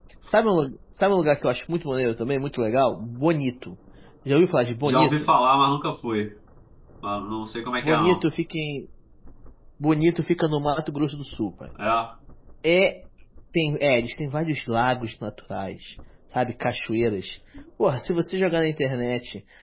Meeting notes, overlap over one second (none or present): none